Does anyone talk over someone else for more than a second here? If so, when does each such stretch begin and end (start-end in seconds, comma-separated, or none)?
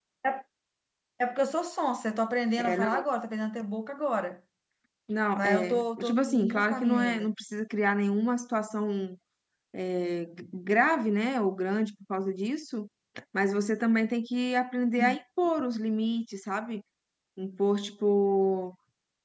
5.4-7.3